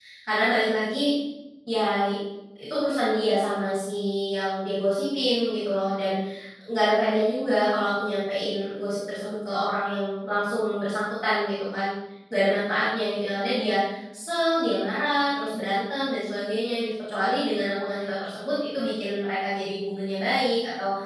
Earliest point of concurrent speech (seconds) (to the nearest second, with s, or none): none